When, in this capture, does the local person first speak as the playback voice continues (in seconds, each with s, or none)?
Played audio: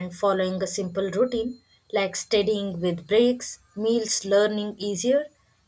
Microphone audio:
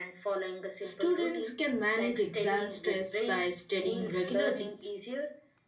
0.8 s